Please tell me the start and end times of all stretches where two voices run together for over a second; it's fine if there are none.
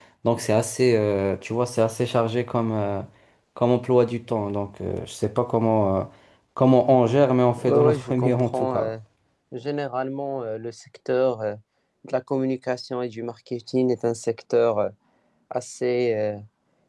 7.6-8.9

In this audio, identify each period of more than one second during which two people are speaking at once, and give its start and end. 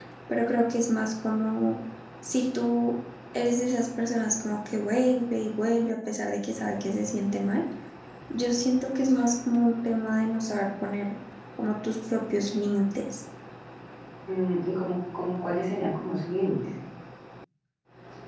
none

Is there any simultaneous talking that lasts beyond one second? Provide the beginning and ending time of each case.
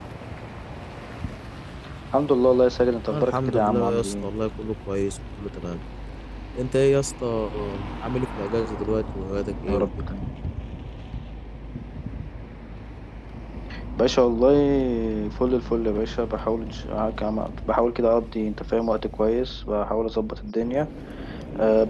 3.1-4.3

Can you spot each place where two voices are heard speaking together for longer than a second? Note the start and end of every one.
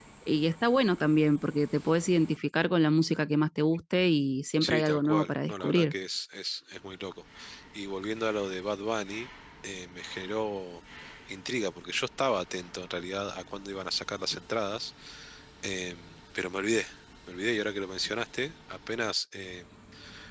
4.6-5.9

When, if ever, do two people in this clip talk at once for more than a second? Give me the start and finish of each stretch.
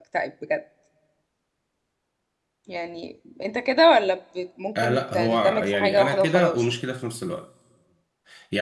4.8-6.6

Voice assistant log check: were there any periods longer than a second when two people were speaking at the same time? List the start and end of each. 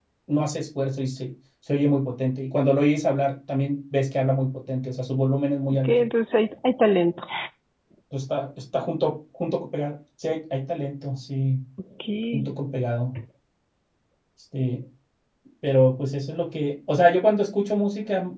none

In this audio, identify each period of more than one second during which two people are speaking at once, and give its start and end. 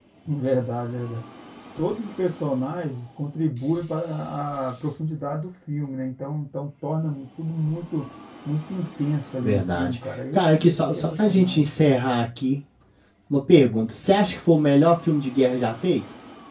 9.4-11.6

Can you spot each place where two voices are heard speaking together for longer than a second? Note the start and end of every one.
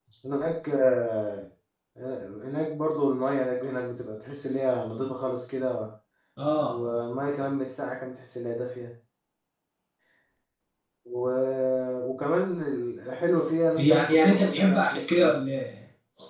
13.8-15.4

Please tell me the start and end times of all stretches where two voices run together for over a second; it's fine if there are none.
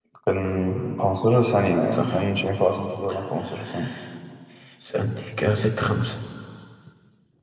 none

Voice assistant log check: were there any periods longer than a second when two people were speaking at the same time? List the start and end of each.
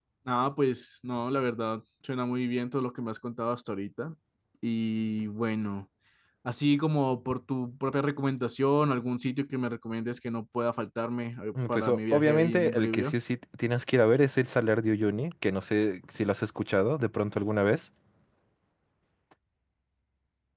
11.7-13.2

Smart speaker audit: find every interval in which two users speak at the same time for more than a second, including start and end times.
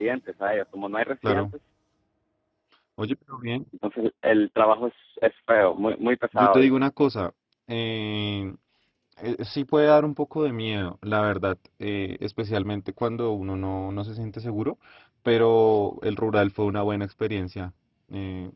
none

